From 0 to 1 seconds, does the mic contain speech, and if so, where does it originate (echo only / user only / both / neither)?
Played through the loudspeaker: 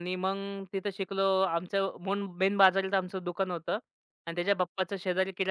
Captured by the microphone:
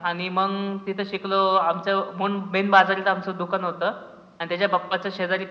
echo only